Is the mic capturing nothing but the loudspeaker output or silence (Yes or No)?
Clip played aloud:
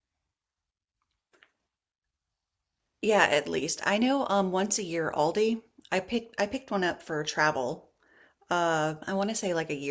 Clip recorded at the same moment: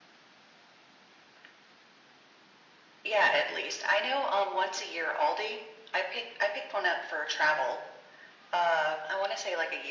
Yes